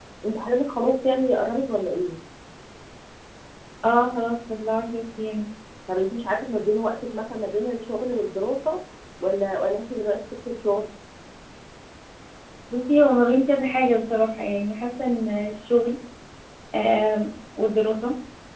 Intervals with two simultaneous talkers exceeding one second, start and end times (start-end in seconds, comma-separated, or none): none